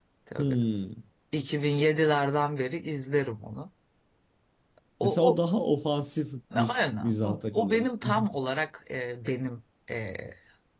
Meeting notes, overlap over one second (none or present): present